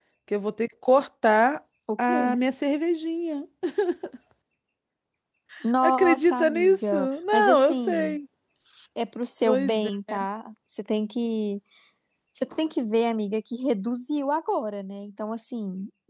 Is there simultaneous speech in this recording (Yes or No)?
Yes